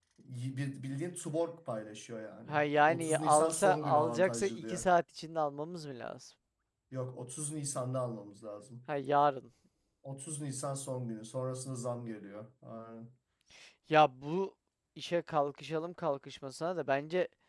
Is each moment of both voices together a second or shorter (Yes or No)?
No